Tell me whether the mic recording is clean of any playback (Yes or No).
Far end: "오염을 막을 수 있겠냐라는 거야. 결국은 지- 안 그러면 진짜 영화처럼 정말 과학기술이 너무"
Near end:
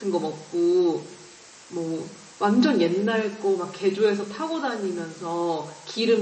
Yes